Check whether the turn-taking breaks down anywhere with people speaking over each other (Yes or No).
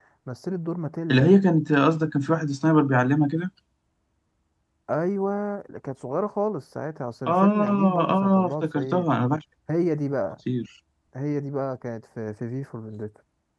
Yes